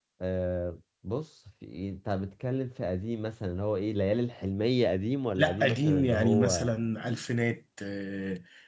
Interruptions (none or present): present